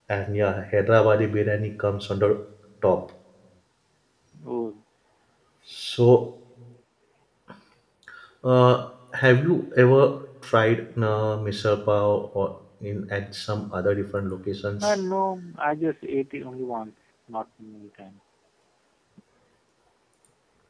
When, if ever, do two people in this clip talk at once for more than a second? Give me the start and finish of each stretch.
none

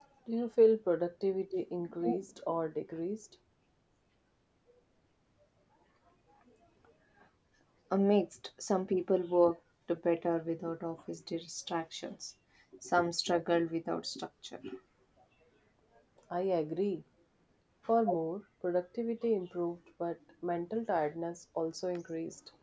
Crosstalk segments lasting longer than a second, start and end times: none

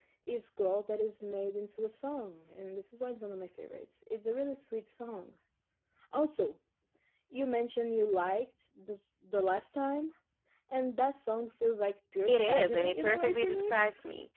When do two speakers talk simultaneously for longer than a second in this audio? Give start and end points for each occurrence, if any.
12.3-13.7

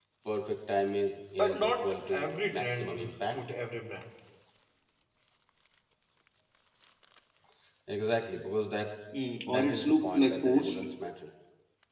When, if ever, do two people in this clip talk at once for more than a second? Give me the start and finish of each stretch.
1.4-3.4, 9.5-10.8

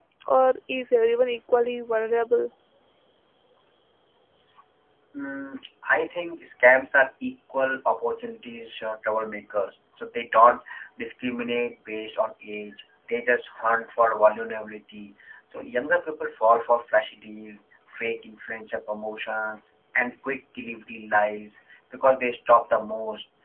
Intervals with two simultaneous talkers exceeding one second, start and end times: none

